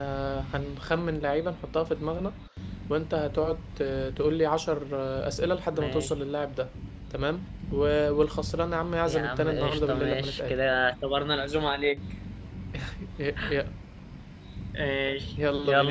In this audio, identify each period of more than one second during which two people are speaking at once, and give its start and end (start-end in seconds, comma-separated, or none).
9.0-10.6